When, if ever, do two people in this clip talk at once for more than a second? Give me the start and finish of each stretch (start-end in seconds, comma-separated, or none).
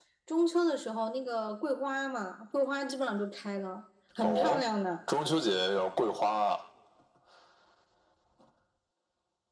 none